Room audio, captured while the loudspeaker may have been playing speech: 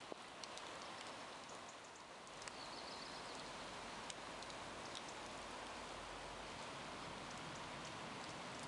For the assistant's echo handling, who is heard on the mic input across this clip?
neither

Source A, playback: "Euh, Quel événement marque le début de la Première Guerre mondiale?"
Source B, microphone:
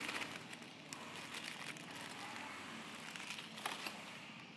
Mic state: neither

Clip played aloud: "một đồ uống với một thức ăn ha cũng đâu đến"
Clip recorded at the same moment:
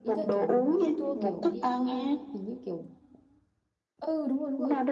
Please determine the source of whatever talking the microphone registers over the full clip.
both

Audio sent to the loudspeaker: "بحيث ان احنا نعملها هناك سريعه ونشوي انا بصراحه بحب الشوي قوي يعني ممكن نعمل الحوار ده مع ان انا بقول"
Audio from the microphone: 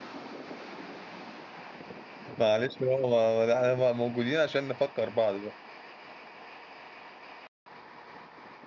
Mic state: user only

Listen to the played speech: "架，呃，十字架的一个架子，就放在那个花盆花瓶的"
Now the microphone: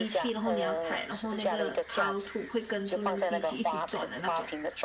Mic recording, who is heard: both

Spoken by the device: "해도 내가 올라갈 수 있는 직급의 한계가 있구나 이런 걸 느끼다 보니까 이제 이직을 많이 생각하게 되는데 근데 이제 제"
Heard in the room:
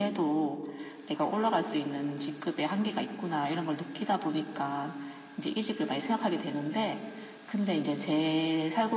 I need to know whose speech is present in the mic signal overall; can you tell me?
echo only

